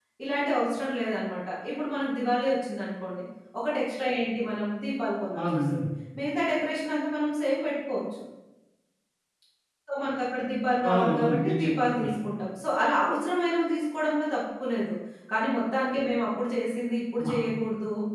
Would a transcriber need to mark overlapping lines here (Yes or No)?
Yes